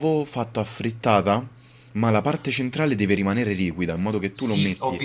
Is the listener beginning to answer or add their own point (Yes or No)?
Yes